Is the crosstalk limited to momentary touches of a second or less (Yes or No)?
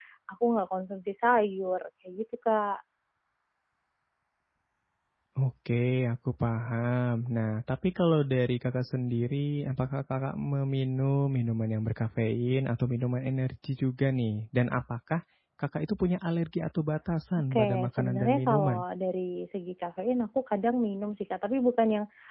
No